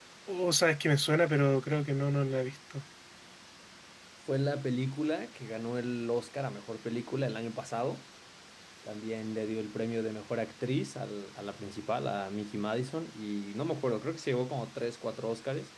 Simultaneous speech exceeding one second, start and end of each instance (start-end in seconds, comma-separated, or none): none